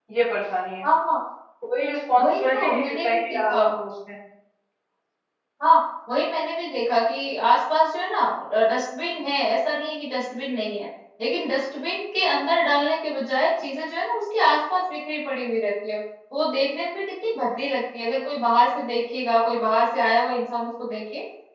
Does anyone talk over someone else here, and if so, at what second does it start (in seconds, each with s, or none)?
2.2 s